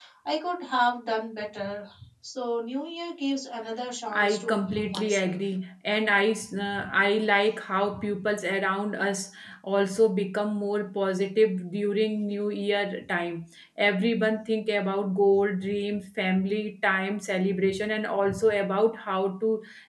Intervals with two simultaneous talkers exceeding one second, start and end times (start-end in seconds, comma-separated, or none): 4.2-5.4